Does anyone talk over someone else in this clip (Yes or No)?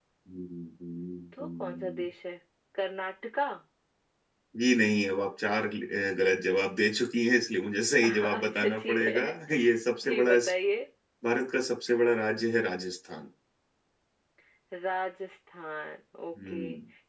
Yes